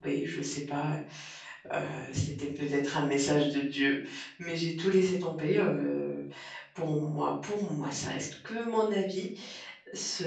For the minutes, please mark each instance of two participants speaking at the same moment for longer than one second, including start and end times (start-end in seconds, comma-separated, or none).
none